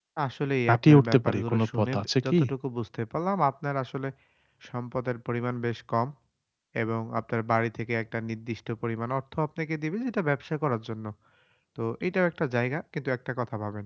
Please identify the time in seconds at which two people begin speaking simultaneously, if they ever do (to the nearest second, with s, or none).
1 s